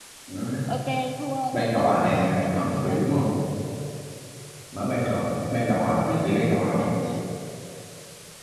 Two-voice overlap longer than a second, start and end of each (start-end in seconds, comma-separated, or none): 1.7-3.0